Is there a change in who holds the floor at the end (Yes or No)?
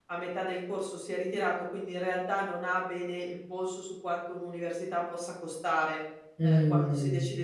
No